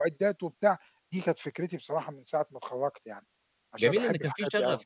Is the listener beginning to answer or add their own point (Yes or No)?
Yes